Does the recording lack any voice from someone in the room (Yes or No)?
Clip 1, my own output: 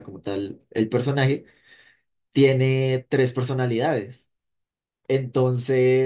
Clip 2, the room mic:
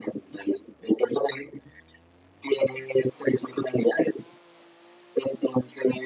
Yes